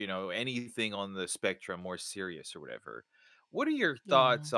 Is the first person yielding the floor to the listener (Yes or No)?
No